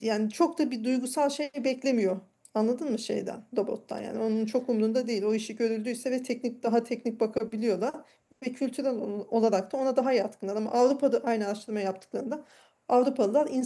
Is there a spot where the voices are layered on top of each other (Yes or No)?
No